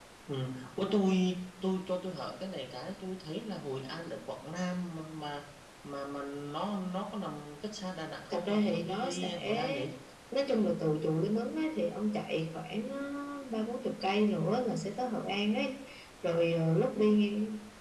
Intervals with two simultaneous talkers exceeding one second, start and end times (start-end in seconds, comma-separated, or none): 8.3-9.9